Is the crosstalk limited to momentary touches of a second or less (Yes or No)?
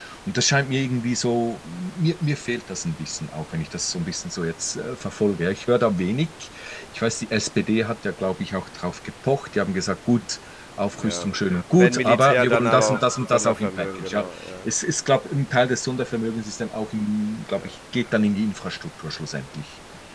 No